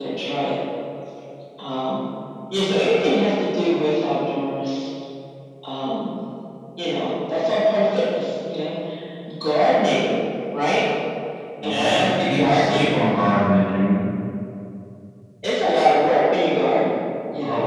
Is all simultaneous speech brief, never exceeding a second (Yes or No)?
No